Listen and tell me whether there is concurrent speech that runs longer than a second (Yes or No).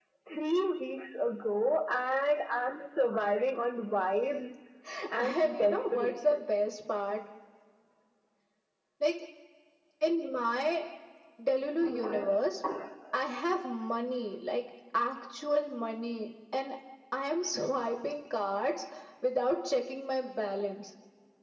Yes